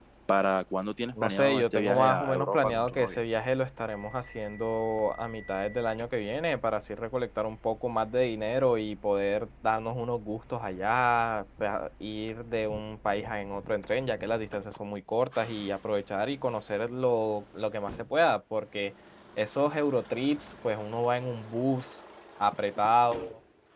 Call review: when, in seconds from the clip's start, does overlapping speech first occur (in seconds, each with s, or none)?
1.2 s